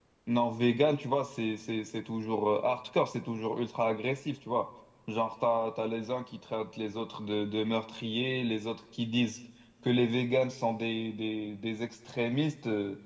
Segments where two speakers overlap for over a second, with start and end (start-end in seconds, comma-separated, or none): none